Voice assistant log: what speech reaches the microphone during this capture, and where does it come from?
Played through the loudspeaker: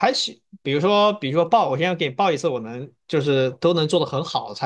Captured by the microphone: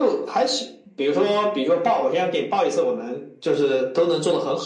echo only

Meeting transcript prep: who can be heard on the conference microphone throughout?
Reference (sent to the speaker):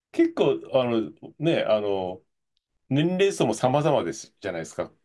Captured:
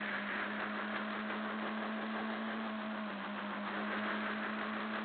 neither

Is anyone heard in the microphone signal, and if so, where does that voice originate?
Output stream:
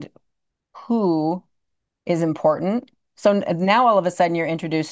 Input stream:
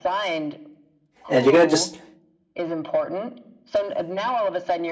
both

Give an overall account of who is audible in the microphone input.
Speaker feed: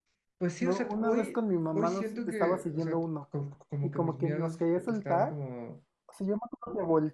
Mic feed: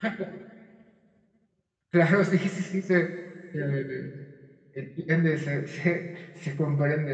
user only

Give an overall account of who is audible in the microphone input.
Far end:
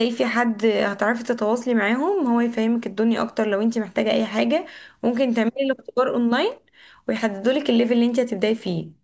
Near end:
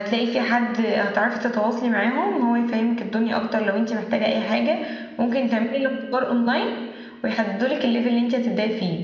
echo only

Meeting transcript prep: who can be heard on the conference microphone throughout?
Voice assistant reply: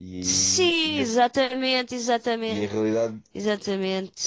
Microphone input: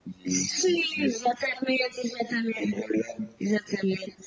echo only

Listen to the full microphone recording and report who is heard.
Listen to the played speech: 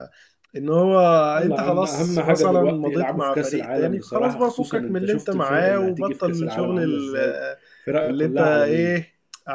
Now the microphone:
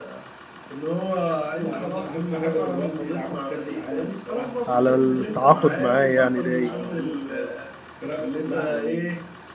both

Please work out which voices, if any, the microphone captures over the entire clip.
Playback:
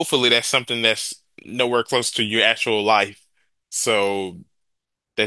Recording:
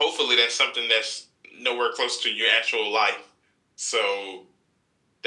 echo only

